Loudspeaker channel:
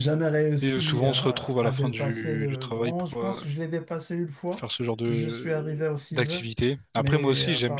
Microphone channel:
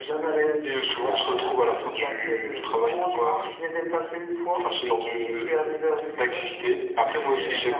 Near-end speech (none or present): none